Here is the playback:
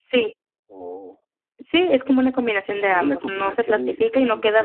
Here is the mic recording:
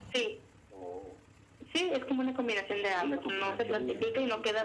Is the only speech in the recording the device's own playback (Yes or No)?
No